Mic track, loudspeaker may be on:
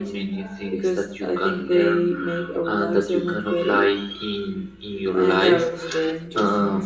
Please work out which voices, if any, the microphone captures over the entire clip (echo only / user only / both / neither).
echo only